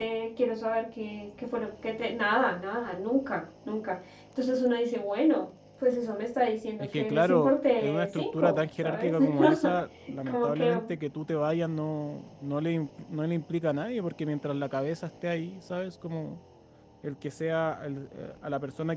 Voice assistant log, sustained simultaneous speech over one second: present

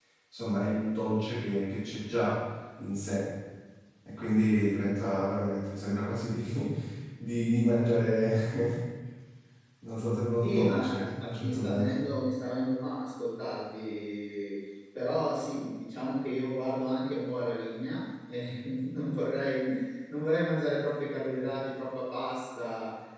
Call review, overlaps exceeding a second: present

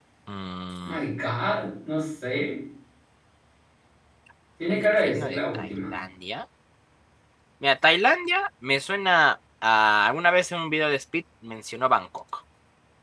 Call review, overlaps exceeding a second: present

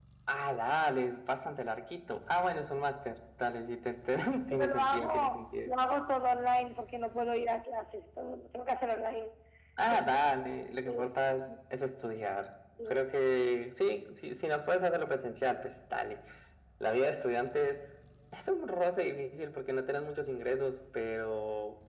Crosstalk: present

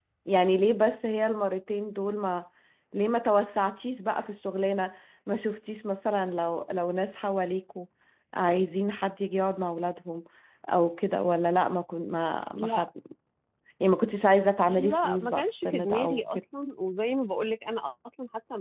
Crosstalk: present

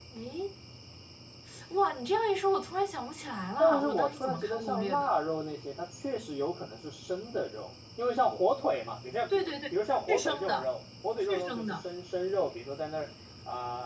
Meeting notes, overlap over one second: present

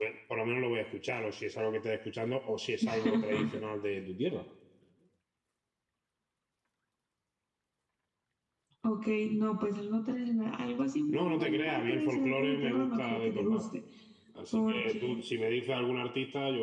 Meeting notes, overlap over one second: present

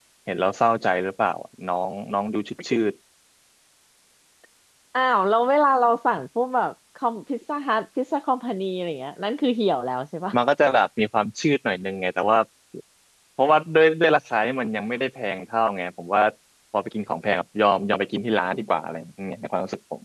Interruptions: none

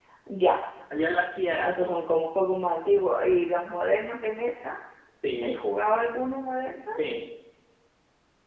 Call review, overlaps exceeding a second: none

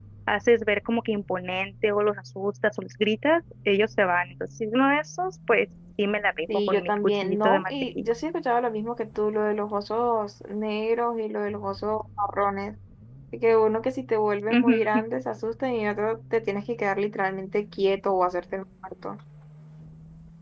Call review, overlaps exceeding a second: present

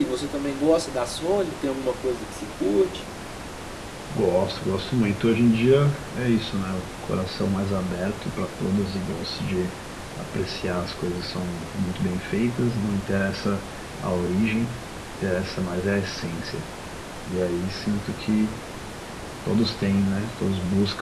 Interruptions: none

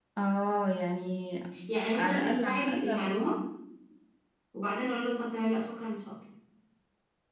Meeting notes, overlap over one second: present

